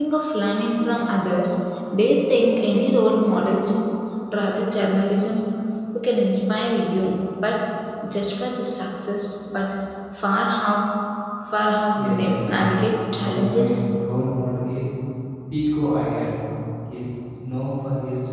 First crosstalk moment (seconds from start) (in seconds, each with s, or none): 11.9 s